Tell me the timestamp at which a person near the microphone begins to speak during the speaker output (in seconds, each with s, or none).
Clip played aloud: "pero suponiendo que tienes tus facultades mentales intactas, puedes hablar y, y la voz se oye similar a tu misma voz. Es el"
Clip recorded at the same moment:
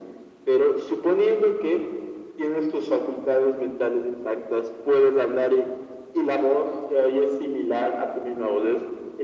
none